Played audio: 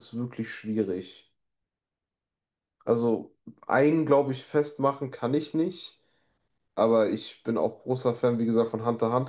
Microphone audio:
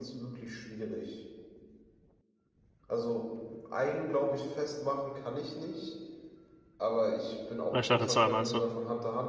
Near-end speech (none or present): present